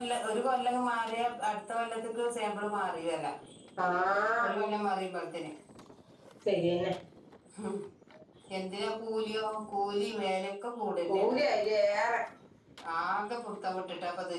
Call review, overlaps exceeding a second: none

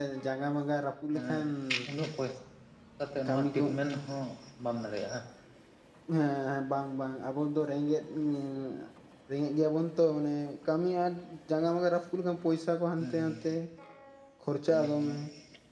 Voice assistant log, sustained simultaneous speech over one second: none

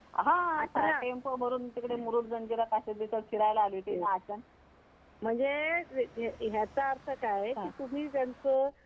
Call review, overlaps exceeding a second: none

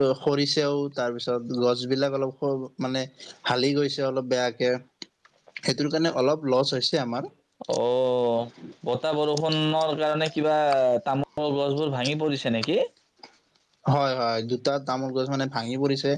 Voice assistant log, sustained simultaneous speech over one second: none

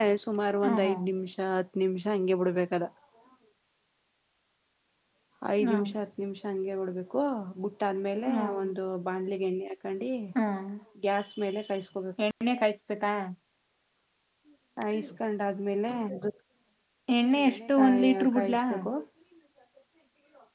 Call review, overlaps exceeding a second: present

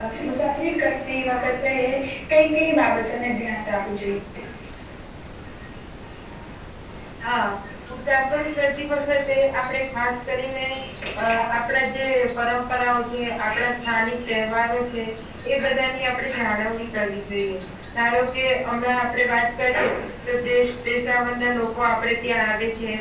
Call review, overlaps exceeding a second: none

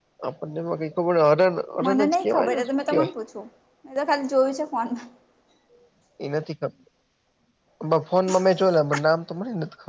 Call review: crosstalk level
present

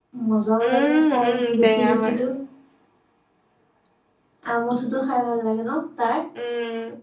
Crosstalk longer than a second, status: present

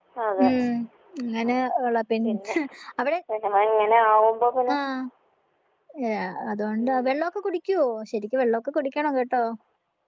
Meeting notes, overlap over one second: none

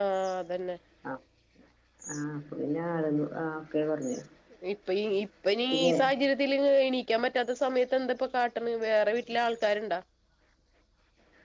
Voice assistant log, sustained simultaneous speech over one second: none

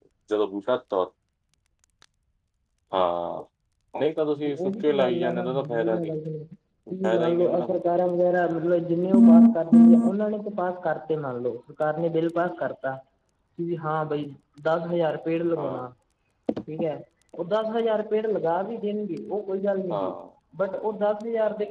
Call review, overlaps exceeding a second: present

